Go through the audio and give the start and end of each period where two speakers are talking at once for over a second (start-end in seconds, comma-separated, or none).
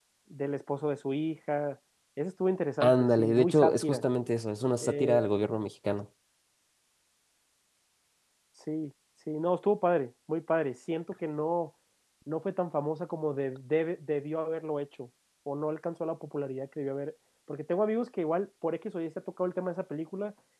2.8-4.0